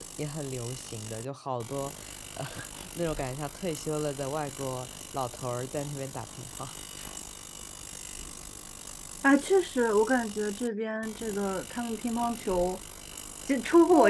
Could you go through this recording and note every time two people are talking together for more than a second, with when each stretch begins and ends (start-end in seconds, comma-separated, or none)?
none